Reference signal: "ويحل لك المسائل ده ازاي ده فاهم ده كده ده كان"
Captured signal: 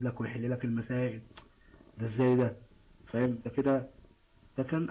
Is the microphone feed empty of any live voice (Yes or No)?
Yes